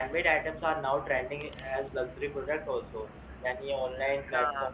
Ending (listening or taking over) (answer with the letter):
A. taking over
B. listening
B